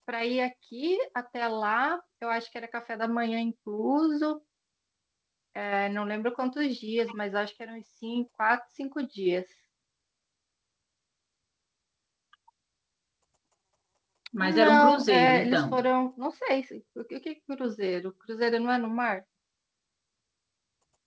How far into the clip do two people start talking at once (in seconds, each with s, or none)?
14.4 s